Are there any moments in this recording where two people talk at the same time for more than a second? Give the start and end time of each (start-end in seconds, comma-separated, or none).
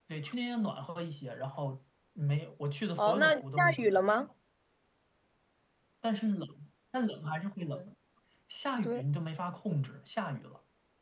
3.0-4.3